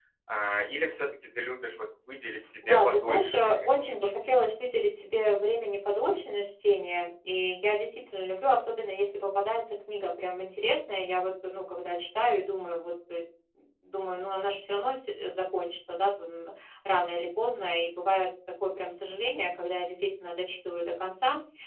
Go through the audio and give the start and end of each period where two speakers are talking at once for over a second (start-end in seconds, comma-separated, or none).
2.6-4.5